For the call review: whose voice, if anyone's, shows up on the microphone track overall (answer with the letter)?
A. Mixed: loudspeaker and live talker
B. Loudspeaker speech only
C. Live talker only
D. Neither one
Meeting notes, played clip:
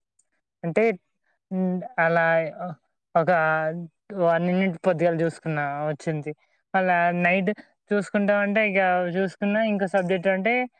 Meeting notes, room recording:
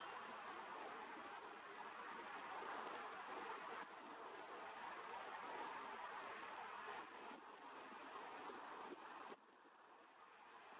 D